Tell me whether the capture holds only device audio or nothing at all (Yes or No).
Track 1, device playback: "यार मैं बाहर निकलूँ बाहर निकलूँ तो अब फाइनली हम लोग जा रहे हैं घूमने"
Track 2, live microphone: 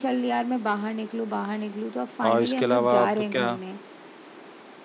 No